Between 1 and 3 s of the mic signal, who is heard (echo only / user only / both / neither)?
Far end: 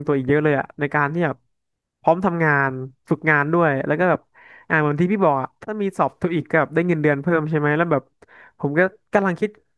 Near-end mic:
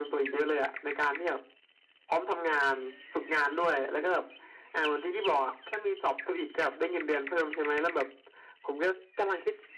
echo only